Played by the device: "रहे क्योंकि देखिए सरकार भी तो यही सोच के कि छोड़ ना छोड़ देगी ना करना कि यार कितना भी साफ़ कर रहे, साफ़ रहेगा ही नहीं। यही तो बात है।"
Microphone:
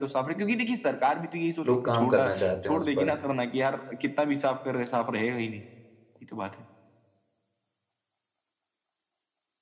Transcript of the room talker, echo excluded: लोग काम करना चाहते हैं उस पर,

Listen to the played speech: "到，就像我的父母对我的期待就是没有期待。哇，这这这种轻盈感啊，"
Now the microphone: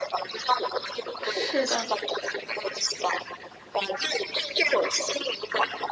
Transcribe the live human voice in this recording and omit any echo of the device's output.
是的，

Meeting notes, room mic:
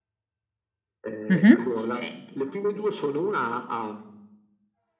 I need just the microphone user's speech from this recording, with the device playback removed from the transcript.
Mh-mh.

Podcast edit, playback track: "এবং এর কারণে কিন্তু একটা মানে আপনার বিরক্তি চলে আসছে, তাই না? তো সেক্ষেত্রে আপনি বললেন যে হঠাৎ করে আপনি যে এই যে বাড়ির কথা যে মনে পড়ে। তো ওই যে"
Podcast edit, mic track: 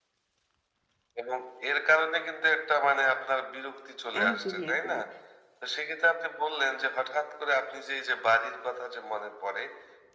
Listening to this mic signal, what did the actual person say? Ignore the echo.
একদমই, একদমই।

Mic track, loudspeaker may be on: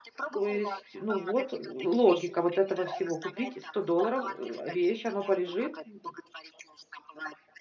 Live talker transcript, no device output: То есть, ну вот логика вот этого всего: купить за 100 долларов, э, вещь, оно полежит, м,

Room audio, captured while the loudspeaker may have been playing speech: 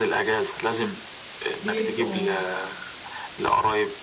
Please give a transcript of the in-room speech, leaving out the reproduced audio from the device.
بيبقوا

